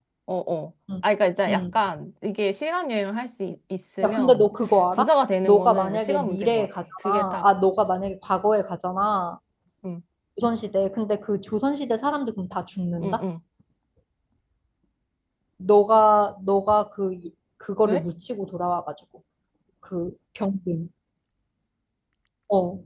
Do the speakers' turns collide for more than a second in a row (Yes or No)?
Yes